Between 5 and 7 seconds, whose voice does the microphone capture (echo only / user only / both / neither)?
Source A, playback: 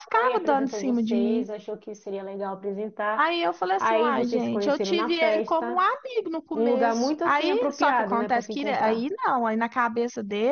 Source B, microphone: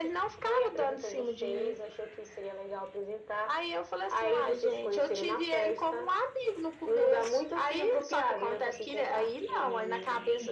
echo only